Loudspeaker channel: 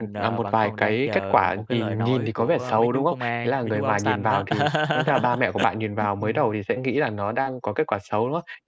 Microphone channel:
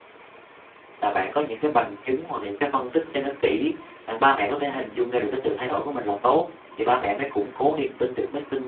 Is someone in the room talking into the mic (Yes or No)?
Yes